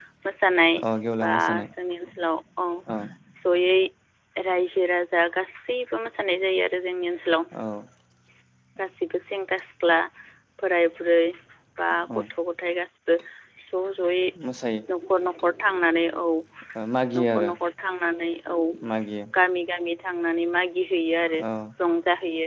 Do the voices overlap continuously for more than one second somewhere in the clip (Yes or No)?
No